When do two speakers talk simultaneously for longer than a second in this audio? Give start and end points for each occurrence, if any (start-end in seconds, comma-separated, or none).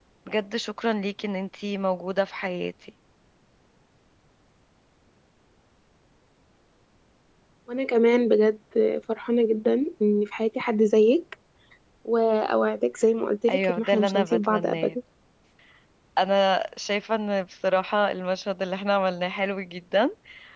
13.5-15.0